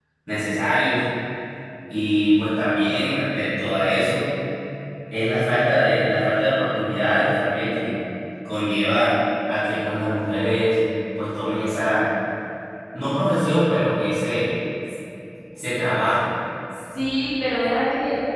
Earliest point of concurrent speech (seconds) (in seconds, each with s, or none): none